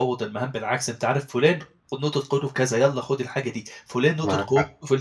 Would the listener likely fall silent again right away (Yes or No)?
Yes